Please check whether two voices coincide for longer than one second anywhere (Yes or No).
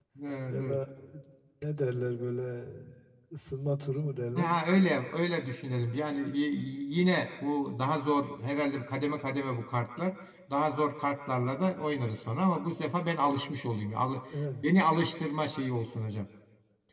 No